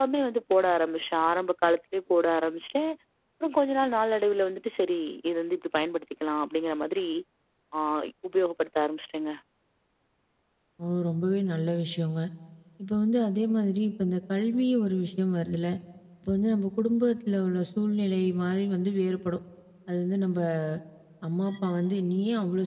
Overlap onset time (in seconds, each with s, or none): none